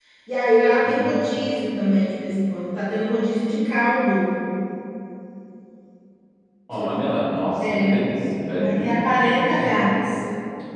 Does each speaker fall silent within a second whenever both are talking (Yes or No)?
No